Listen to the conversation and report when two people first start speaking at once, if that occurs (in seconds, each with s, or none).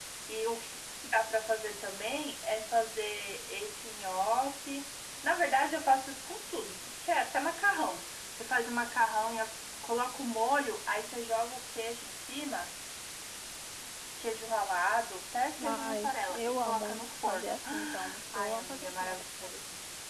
15.6 s